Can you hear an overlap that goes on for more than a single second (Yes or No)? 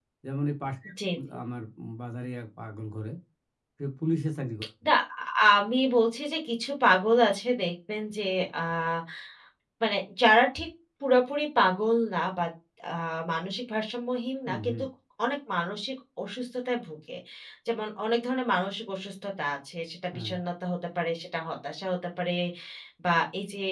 No